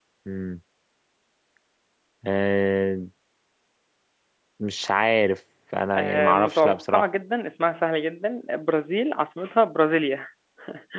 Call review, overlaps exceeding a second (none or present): present